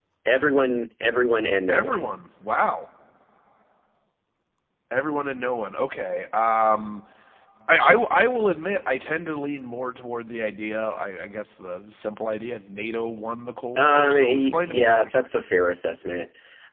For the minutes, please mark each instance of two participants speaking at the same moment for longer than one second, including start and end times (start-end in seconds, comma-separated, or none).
13.8-15.3